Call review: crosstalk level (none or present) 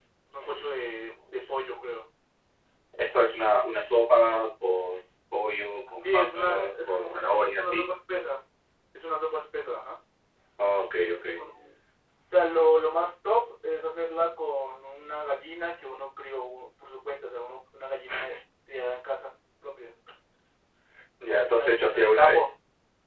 present